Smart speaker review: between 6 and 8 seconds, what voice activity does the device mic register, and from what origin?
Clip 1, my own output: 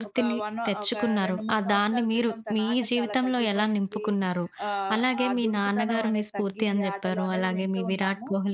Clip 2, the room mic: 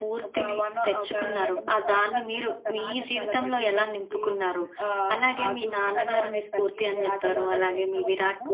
echo only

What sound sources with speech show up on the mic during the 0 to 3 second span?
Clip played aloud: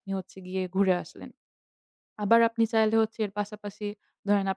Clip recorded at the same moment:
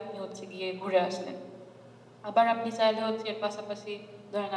echo only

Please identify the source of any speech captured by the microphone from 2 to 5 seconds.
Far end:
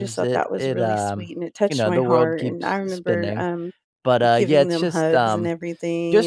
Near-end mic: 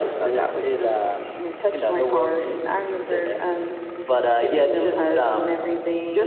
echo only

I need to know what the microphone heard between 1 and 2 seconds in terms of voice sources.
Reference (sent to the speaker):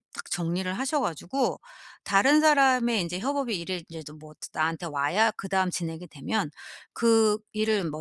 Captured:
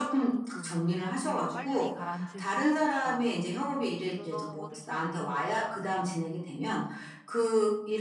both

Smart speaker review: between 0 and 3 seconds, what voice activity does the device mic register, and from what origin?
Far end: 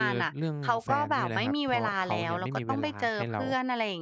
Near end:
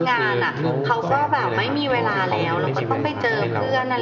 both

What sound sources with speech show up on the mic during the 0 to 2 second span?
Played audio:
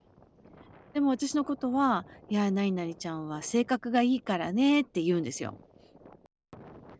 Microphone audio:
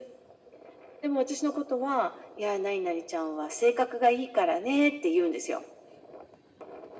echo only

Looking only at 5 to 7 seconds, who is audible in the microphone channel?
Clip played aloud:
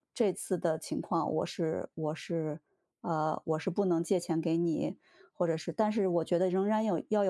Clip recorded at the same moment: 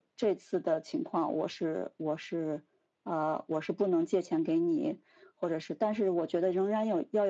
echo only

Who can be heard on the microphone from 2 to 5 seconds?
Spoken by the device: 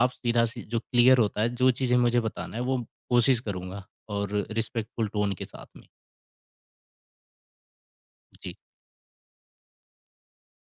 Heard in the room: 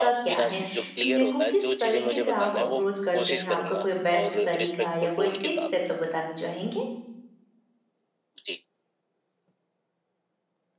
both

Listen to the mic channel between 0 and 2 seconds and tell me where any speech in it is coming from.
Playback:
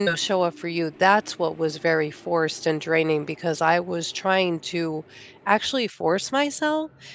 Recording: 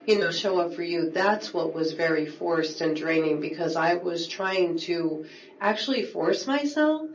echo only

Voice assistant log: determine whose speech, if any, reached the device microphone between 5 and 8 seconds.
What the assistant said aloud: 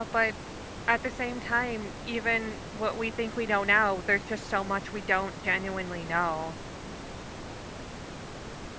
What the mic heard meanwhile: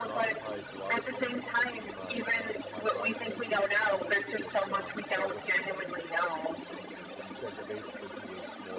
both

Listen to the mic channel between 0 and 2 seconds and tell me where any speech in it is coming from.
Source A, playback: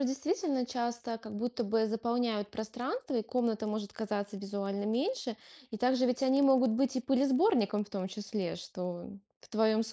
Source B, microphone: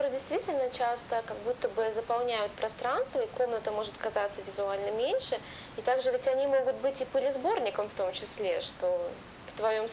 echo only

